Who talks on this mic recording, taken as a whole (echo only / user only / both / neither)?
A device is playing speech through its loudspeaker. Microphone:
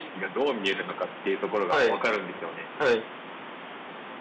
both